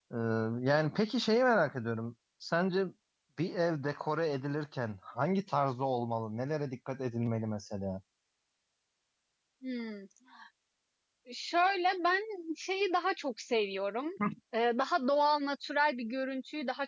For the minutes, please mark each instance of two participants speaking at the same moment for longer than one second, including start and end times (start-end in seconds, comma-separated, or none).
none